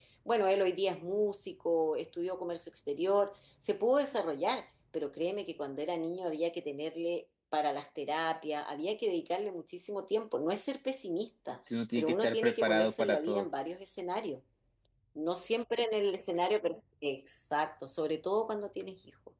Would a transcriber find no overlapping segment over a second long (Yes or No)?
No